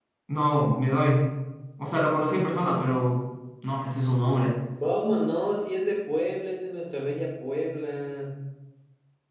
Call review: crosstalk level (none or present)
none